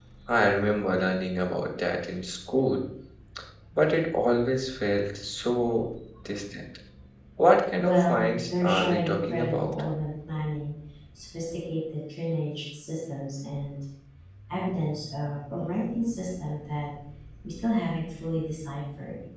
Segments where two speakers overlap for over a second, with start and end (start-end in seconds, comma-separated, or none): 7.8-9.8